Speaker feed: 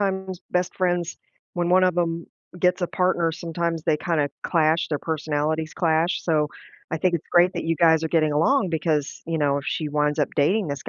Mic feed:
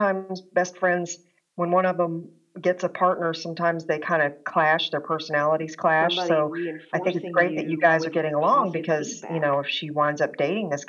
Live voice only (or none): somebody reinforcing you with positive feedback,